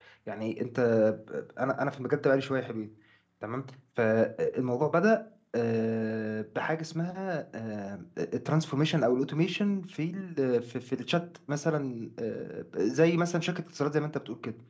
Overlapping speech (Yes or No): No